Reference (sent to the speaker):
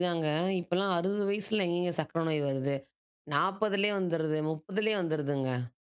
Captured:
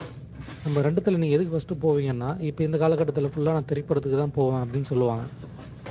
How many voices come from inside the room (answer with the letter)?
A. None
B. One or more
B